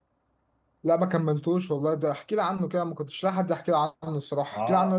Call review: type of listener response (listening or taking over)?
taking over